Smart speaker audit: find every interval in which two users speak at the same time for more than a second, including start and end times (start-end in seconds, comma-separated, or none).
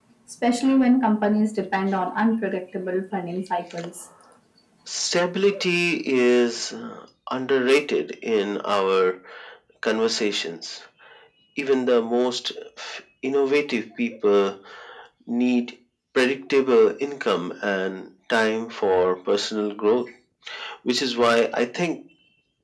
none